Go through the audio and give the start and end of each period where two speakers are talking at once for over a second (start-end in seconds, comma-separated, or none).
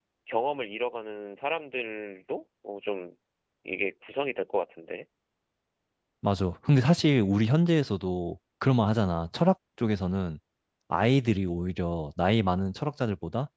none